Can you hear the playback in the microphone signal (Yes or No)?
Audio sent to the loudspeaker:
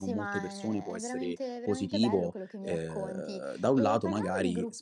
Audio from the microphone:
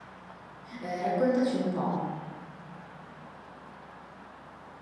No